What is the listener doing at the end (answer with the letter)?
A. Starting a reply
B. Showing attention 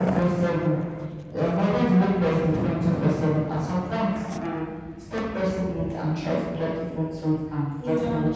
B